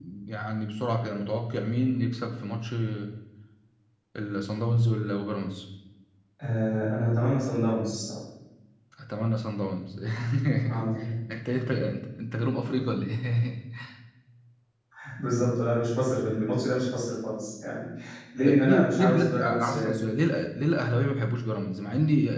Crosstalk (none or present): present